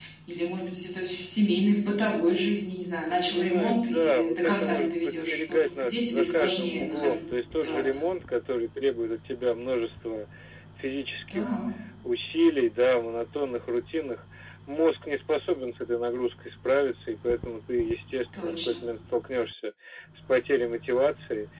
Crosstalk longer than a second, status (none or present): present